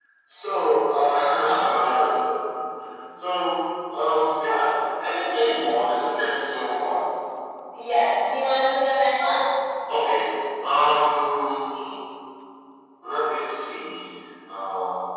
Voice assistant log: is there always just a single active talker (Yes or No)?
Yes